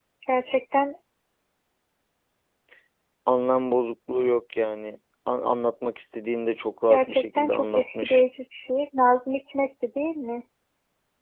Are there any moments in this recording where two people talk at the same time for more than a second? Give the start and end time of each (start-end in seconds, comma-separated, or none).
6.9-8.2